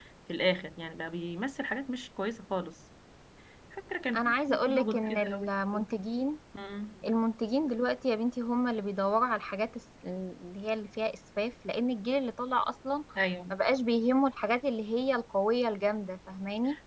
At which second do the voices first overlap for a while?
4.2 s

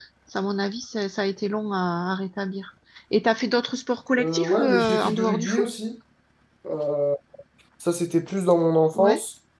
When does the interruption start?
4.2 s

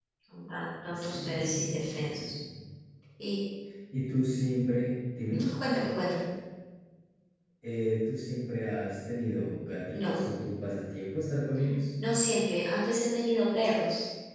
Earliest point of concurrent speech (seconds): 0.9 s

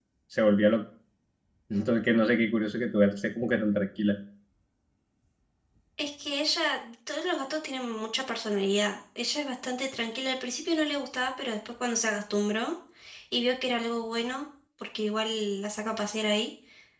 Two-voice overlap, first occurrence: none

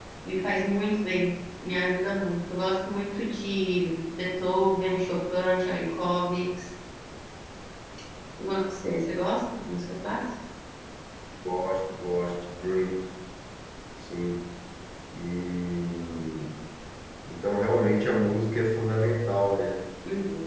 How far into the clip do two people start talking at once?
none

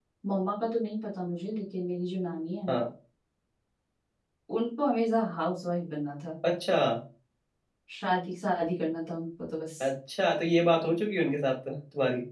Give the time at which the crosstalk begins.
none

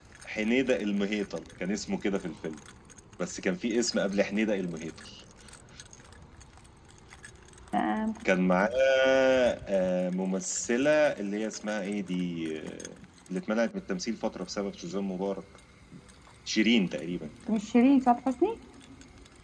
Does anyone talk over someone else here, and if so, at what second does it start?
none

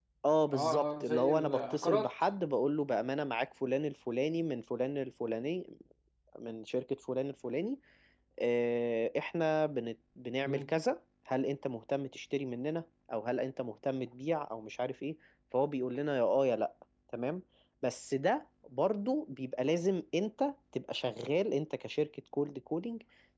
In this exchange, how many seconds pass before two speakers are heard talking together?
0.5 s

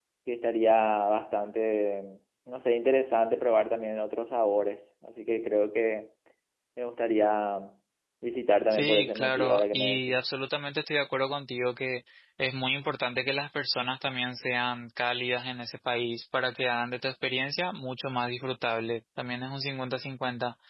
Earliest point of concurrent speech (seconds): 8.7 s

